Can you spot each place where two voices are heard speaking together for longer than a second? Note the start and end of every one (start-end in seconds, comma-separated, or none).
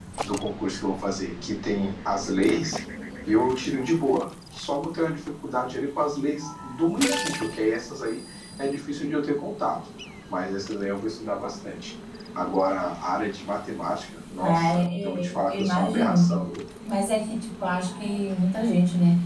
14.4-16.4